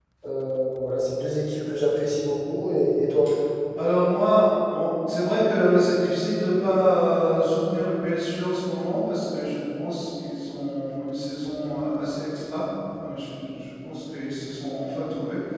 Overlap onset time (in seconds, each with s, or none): none